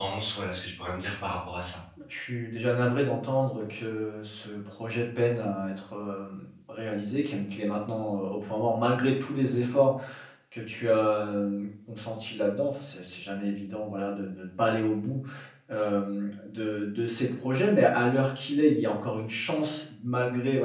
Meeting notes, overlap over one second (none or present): none